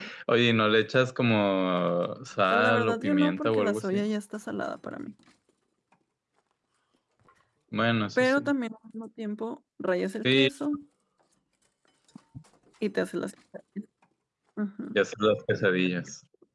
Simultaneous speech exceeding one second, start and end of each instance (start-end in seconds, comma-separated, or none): 2.5-4.0